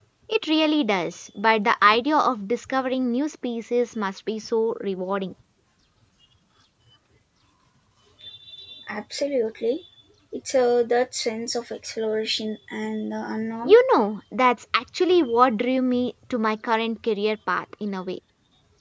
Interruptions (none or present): none